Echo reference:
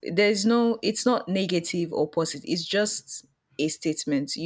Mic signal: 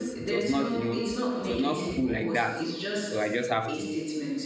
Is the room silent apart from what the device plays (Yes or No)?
No